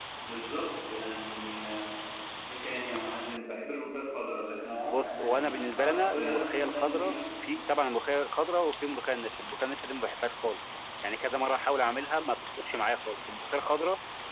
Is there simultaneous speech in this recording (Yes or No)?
Yes